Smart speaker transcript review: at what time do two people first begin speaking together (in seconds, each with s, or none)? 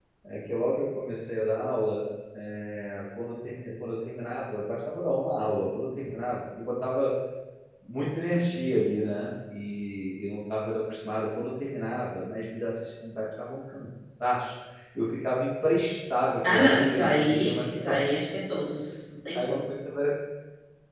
16.5 s